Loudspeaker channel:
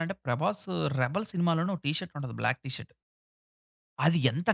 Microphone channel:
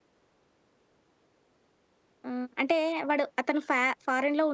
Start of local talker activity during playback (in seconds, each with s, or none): 2.3 s